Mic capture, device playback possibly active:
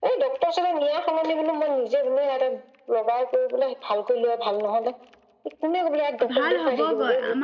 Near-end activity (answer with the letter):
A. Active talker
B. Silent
A